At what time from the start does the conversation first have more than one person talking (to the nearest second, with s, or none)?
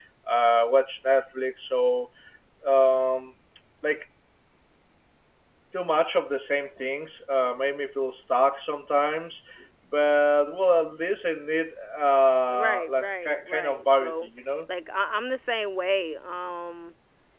12 s